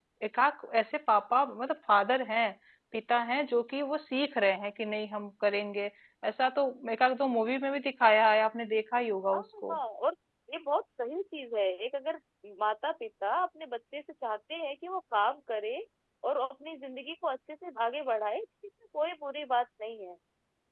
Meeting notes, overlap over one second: none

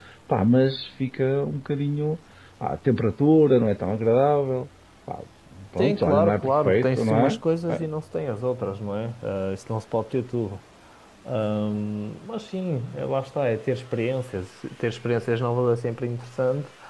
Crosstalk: present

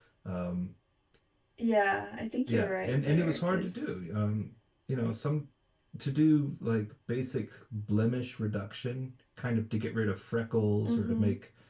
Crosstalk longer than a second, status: present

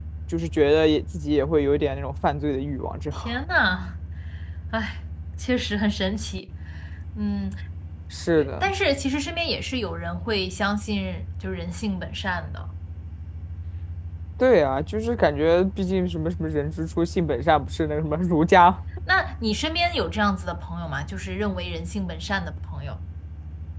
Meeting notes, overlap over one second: none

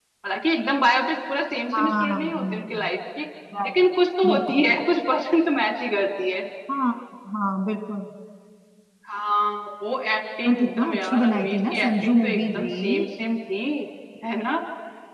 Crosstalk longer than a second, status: present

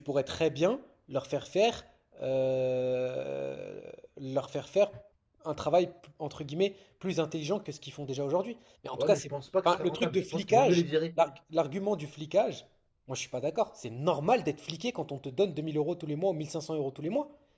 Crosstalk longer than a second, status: present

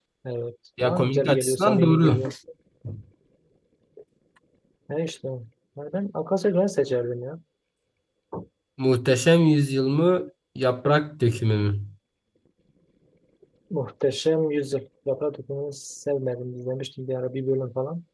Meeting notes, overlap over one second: present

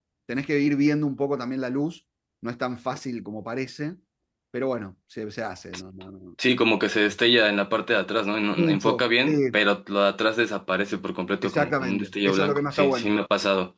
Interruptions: present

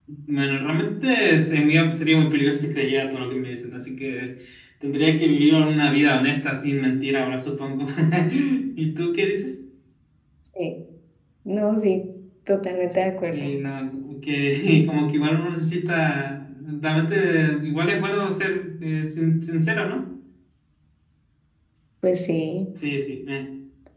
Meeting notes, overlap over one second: none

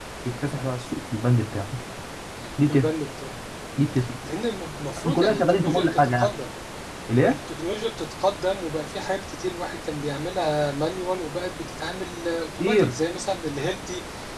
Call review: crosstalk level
present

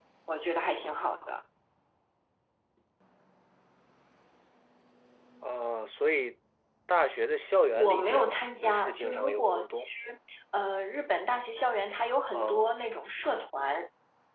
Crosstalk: present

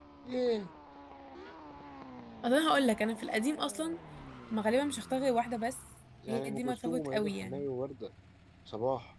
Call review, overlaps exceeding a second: present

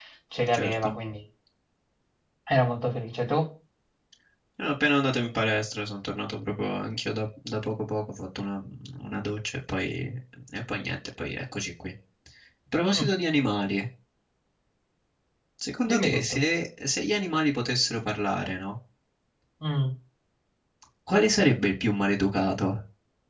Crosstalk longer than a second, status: none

